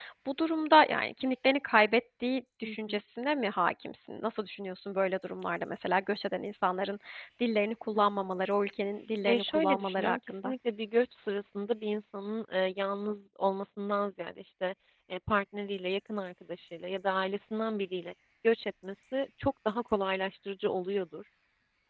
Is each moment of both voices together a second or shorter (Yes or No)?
No